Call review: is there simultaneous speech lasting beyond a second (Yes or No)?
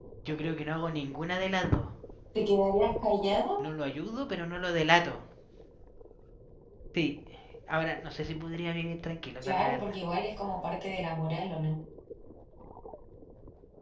No